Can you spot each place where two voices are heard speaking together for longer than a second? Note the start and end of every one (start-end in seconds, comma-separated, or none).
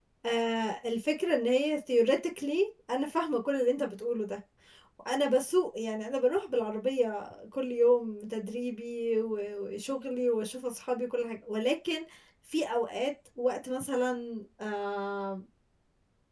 none